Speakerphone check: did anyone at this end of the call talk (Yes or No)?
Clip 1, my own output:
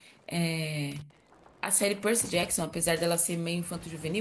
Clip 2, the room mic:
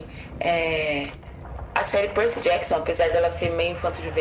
No